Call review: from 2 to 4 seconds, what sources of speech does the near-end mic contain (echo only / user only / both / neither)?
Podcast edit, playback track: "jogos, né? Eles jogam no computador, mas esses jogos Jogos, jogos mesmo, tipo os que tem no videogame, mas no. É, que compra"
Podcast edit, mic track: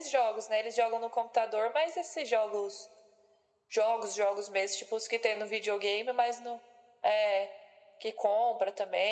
echo only